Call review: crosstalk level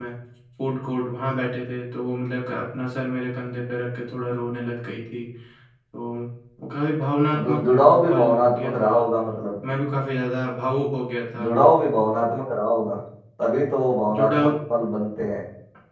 present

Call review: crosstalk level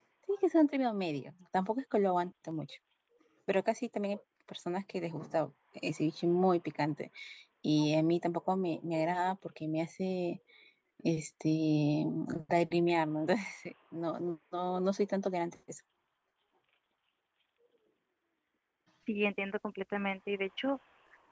none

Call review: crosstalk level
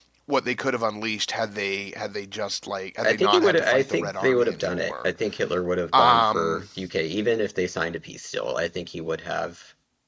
present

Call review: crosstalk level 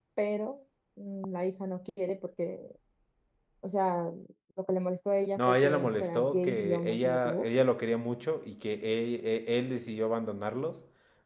present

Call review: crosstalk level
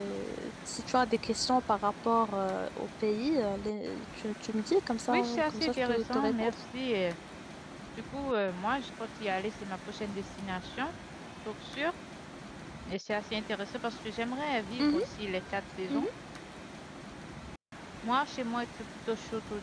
present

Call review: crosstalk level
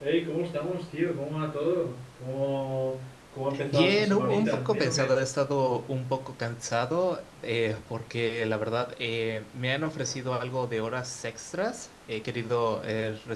present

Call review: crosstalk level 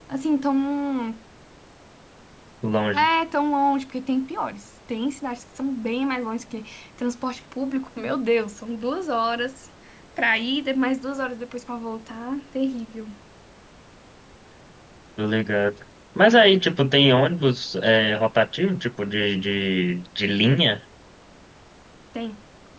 none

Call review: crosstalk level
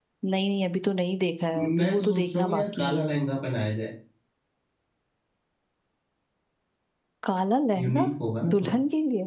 present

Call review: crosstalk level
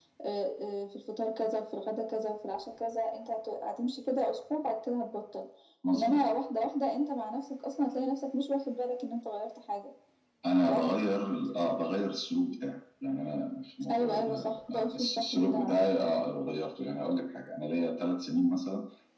present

